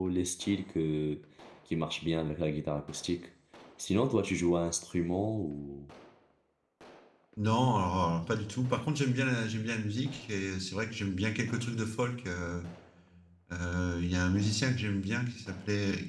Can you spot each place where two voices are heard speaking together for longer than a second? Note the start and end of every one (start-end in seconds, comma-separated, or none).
none